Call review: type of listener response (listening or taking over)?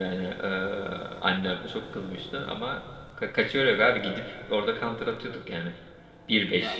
taking over